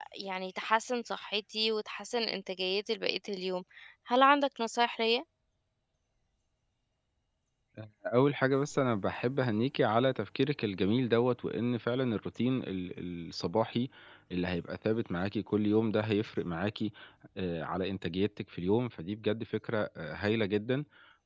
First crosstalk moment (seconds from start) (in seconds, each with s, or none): none